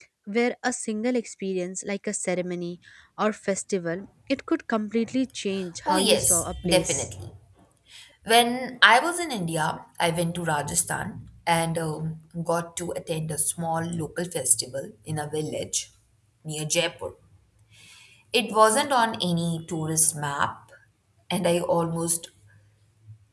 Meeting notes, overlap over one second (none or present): present